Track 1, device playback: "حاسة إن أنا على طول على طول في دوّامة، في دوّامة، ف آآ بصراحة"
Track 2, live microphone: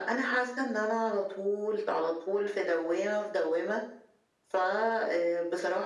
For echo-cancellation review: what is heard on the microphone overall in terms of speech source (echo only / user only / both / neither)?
echo only